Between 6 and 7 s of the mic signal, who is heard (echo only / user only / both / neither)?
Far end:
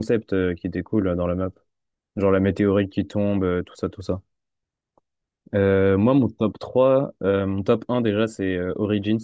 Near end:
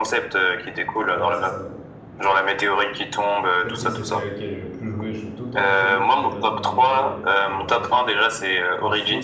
both